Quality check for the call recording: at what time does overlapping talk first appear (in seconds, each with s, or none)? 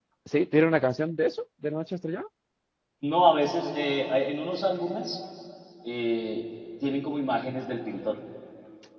none